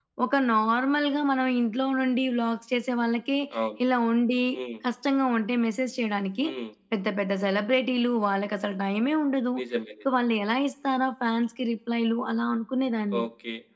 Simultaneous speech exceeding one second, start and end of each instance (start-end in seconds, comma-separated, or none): none